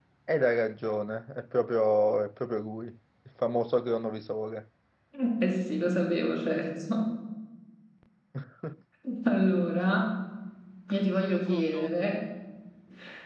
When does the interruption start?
none

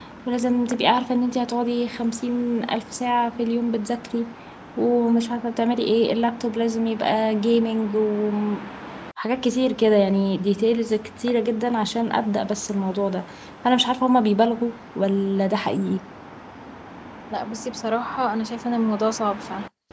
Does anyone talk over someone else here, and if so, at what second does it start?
none

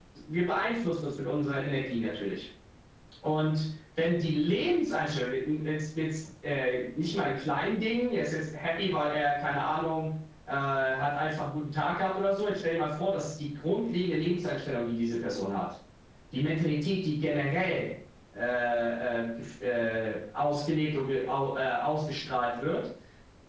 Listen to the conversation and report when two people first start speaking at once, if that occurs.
none

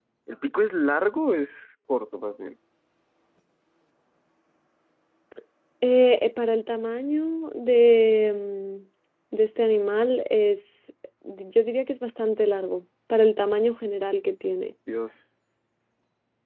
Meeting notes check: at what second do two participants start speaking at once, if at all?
none

